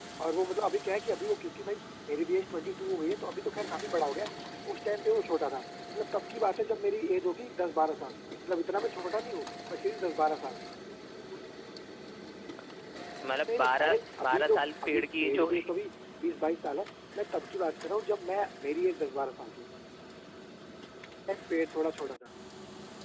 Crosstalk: present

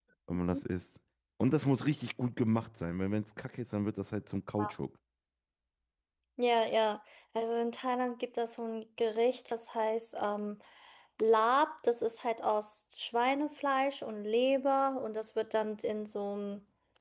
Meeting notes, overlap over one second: none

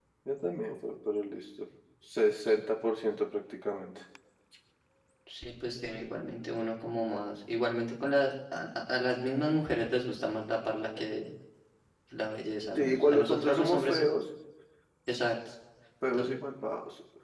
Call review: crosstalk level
present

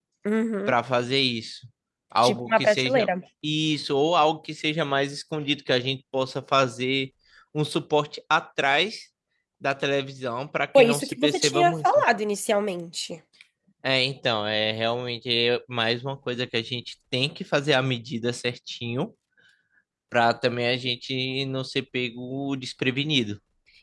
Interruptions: present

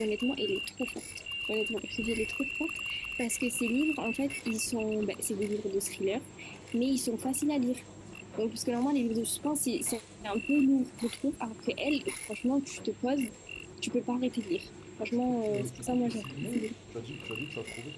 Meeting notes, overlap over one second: present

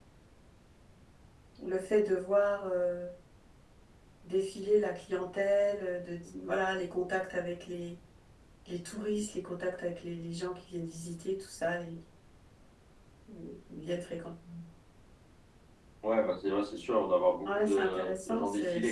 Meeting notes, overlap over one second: present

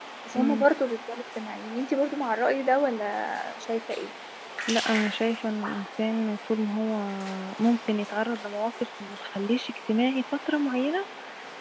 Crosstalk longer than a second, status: none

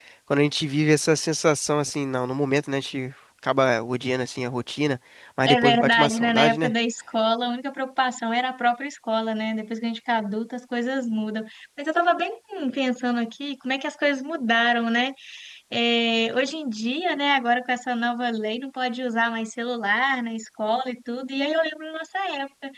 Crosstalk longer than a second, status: present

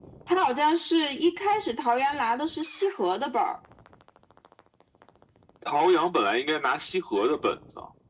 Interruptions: none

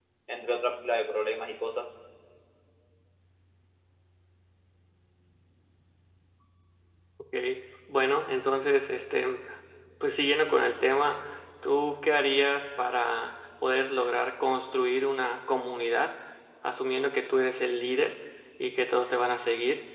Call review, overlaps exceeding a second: none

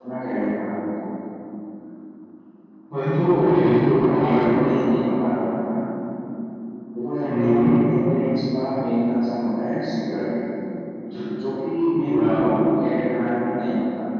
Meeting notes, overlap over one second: present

